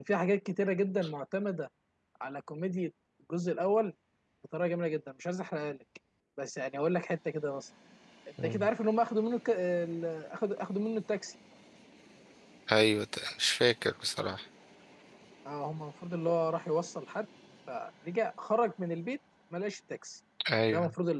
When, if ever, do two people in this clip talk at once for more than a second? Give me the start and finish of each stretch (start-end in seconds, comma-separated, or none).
none